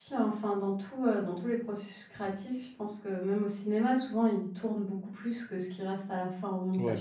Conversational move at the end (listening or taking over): taking over